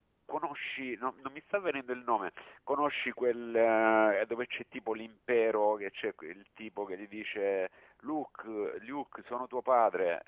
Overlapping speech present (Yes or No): No